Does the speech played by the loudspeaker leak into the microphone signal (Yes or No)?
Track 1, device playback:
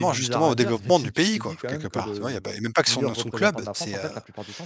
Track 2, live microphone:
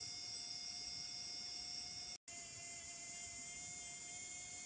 No